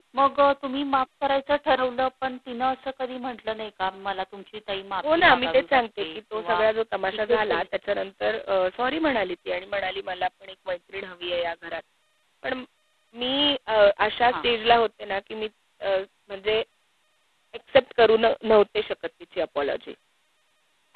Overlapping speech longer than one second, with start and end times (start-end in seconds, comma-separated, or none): 5.2-6.6